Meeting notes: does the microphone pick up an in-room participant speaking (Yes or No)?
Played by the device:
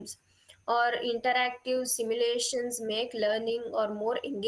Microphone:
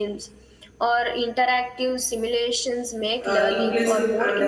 Yes